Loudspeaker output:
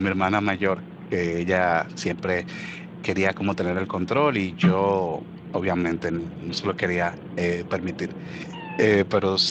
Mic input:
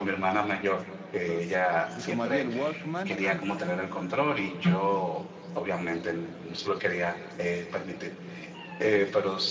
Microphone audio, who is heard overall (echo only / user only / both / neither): both